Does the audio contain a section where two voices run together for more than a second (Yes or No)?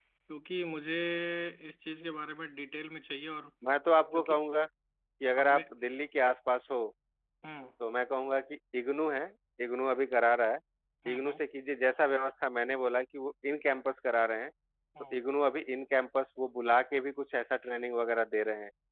No